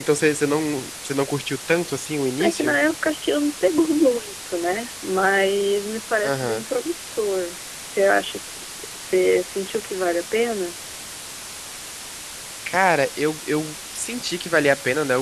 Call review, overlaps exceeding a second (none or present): none